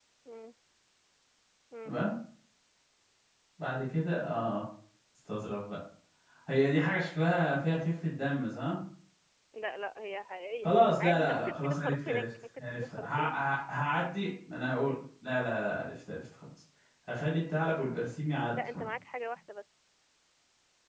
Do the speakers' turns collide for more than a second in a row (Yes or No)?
Yes